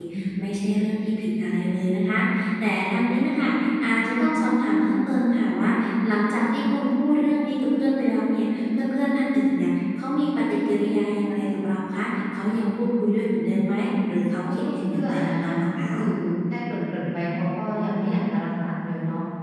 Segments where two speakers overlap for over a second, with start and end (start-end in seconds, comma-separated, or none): 14.6-15.9